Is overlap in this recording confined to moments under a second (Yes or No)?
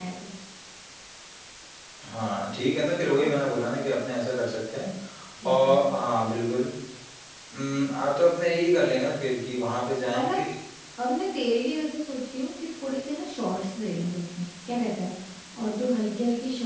Yes